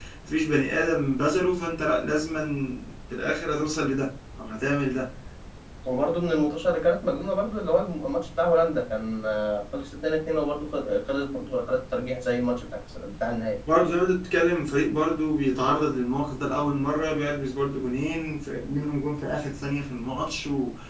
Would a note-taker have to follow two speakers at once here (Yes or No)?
No